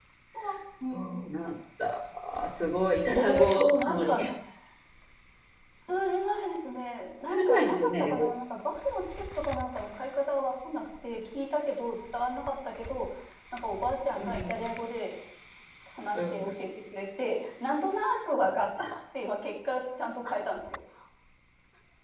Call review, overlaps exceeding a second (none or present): present